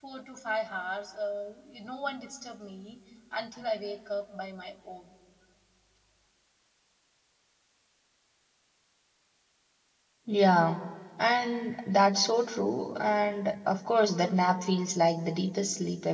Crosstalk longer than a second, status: none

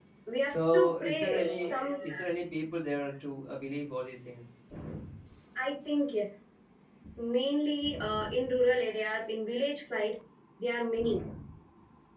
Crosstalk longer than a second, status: present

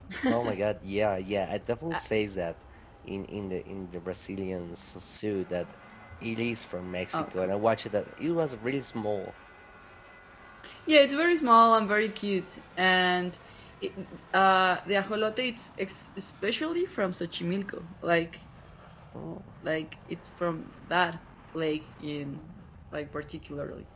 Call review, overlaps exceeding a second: none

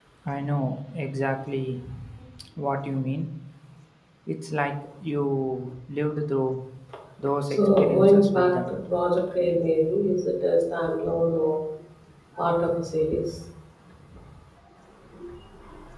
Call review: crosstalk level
present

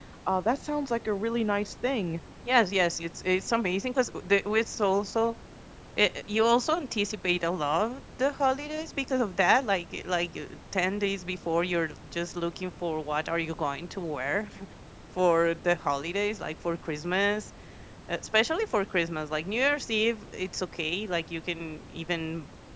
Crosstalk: none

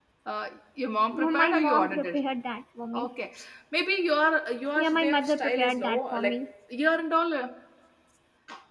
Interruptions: present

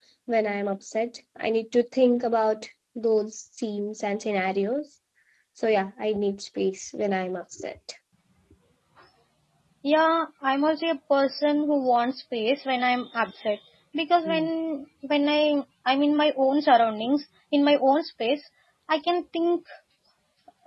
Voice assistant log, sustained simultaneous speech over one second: none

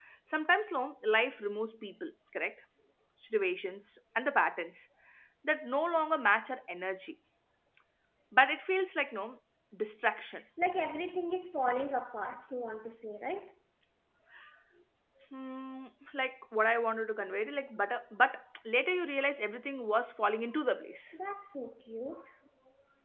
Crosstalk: none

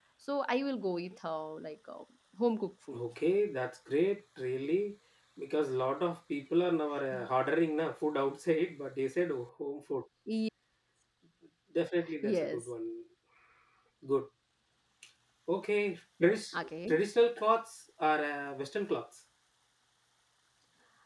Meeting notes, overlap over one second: none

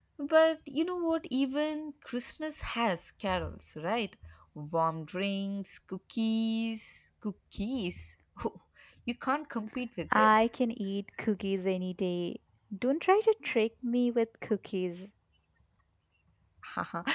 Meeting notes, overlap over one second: none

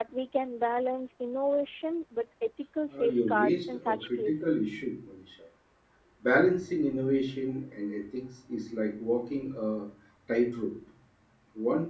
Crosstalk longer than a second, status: present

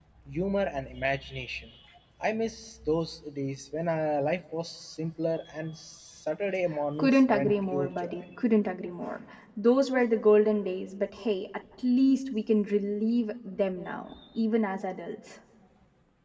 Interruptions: present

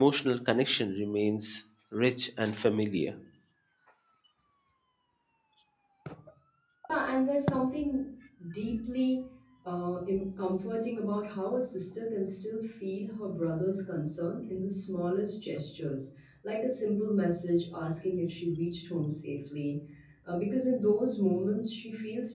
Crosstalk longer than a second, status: none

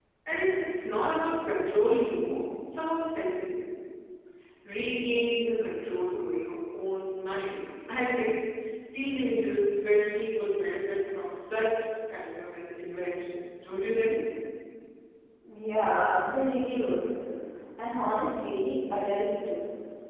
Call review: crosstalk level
none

